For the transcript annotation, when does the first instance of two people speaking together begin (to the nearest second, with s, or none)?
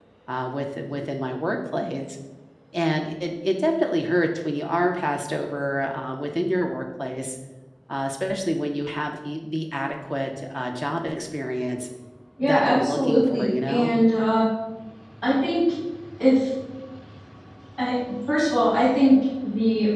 12 s